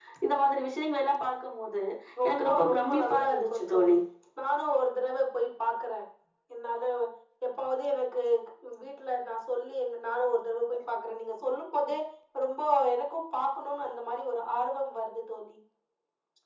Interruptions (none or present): present